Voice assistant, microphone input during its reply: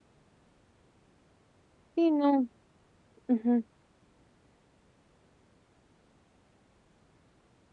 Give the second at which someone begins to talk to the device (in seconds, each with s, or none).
2.0 s